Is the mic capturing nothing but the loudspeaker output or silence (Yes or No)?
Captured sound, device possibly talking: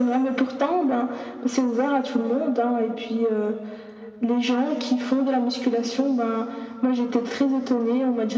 Yes